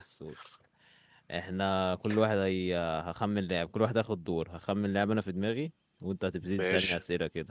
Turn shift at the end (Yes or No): No